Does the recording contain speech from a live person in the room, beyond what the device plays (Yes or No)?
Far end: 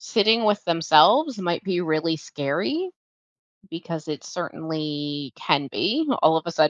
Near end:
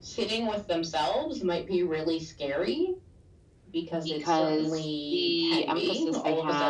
Yes